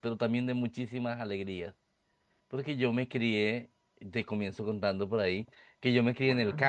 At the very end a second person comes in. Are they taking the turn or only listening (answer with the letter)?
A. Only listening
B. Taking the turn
A